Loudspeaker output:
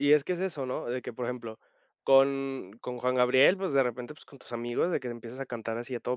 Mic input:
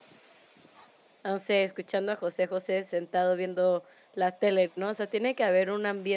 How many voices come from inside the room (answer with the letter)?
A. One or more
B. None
A